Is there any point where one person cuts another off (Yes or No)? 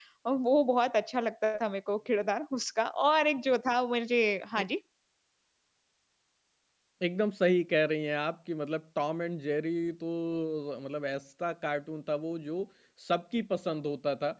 No